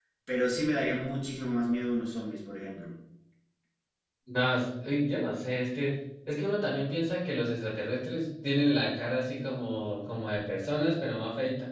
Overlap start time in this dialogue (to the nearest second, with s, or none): none